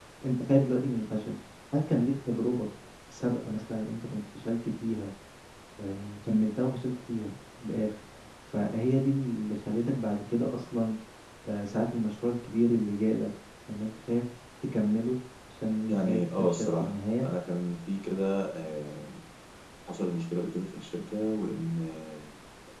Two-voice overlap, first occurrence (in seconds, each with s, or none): 15.9 s